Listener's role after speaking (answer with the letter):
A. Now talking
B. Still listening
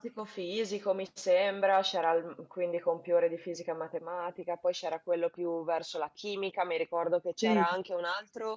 B